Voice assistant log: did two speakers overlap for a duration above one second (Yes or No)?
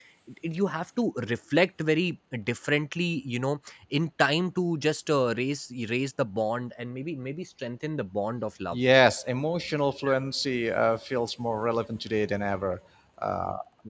No